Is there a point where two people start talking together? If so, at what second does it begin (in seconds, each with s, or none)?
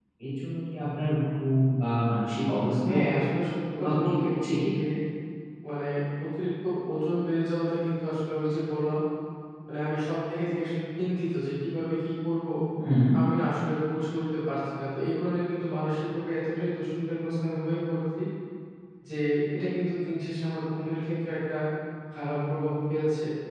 2.9 s